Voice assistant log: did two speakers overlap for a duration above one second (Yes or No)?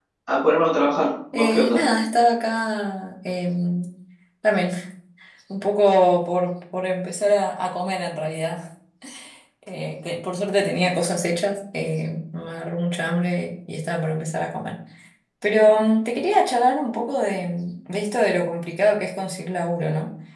No